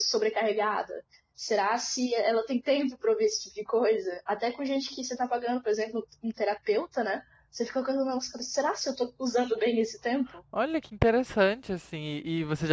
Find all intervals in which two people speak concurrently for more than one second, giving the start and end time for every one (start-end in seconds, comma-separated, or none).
none